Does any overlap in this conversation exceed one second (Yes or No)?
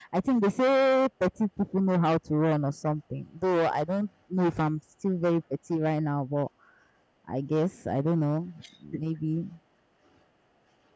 No